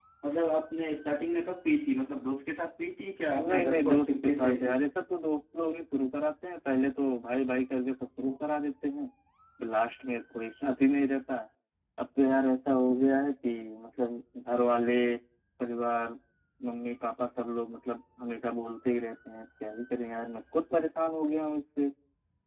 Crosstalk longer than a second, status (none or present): present